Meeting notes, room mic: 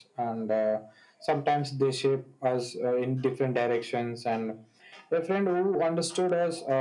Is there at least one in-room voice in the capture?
No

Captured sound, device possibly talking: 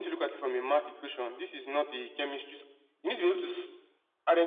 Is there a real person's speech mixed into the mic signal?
No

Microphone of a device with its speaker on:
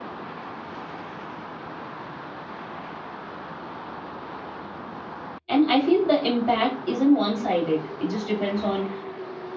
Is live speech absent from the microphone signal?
No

